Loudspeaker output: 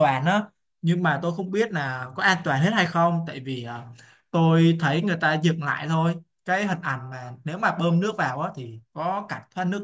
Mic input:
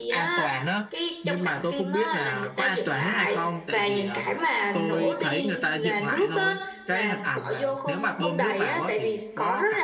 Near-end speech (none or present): present